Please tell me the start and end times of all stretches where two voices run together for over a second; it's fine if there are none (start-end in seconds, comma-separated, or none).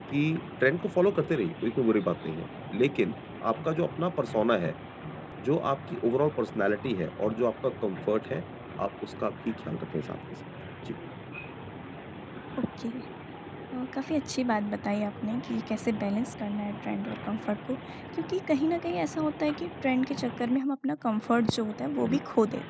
none